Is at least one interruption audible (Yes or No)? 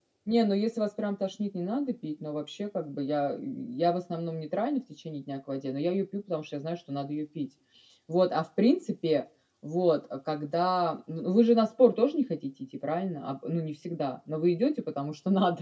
No